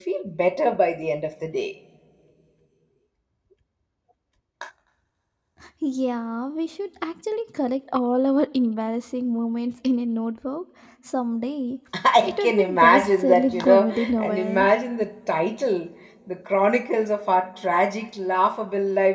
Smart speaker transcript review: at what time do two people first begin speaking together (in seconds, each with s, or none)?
12.2 s